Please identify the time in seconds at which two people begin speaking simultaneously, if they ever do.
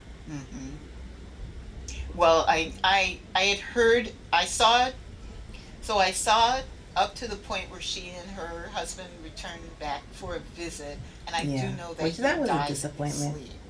11.4 s

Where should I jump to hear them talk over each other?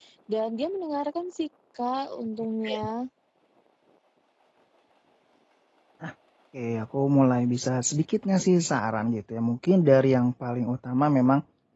none

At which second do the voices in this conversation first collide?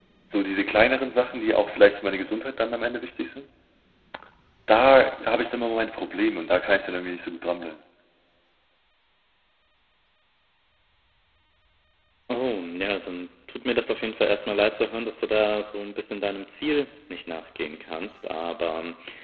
none

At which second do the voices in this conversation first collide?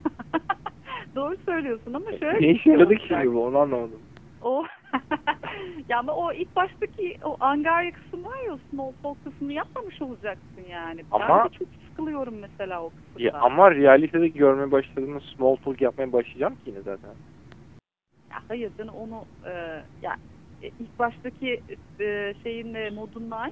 2.1 s

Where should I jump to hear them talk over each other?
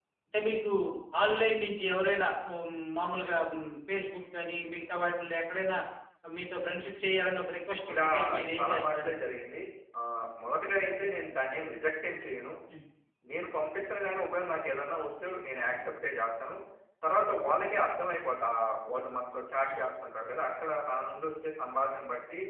7.9 s

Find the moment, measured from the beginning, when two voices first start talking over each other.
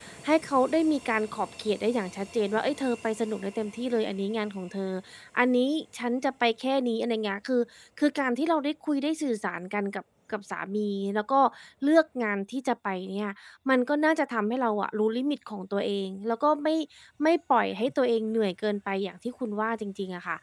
none

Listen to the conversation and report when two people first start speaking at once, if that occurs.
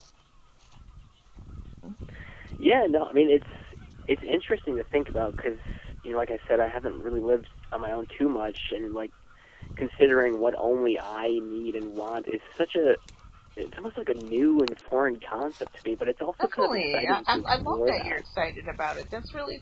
16.4 s

